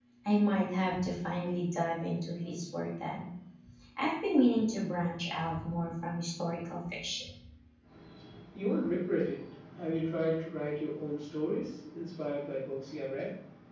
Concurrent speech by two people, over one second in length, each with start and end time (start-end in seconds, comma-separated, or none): none